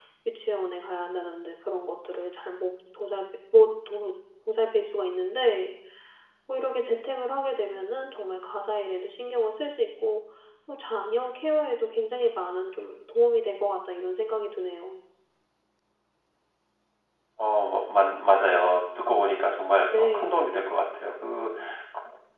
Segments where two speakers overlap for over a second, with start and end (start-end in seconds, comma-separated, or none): none